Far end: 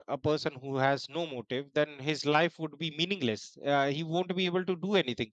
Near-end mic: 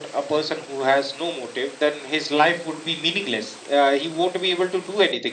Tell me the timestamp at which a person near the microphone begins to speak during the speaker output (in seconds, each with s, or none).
none